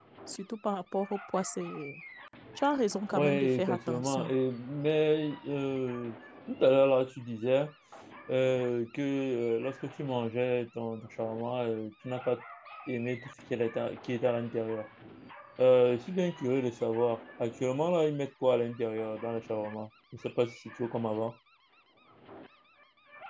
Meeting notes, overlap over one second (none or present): present